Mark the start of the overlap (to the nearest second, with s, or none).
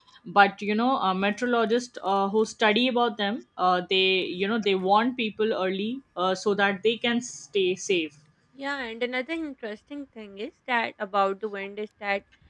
none